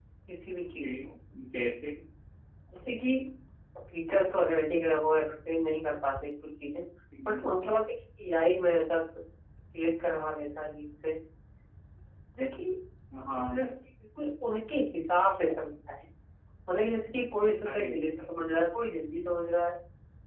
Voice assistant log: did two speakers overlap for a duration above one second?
No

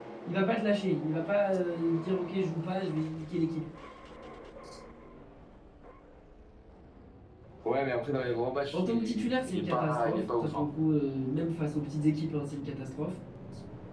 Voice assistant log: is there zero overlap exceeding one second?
No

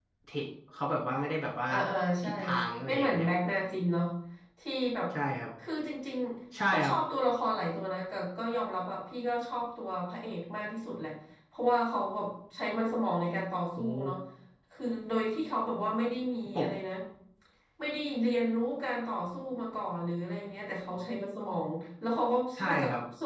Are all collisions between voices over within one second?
Yes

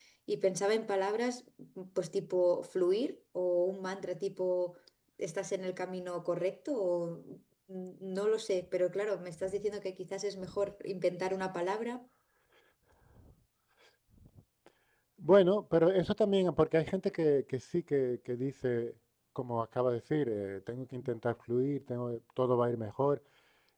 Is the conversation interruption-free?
Yes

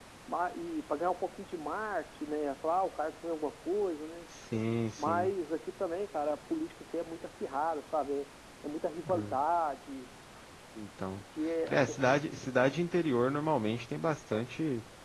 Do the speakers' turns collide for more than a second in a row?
No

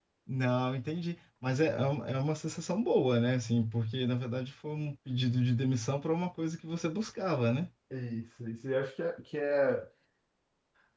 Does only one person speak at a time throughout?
Yes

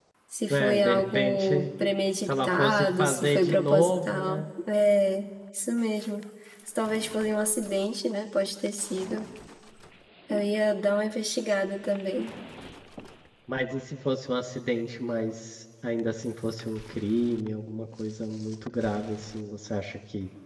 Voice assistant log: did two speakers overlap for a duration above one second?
Yes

